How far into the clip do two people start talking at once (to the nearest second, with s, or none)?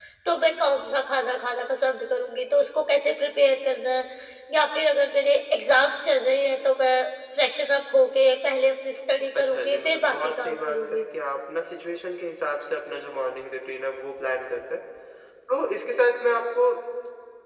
9 s